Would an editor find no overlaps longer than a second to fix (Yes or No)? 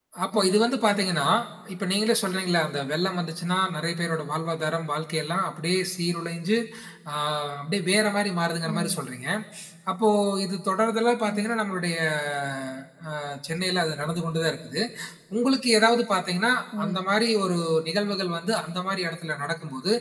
Yes